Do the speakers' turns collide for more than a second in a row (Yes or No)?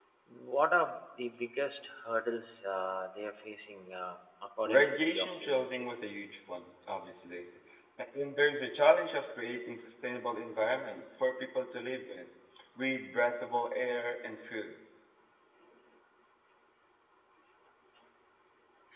Yes